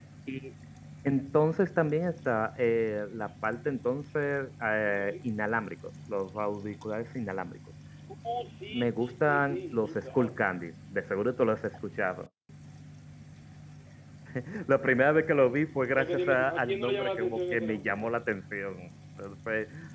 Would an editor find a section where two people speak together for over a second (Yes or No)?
Yes